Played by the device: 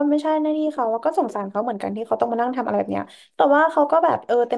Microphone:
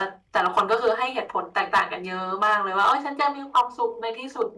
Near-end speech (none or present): present